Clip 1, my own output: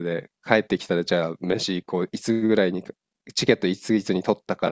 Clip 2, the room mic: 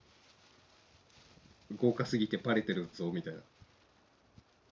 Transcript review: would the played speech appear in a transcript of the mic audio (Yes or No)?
No